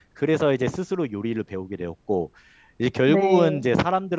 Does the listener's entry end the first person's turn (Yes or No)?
No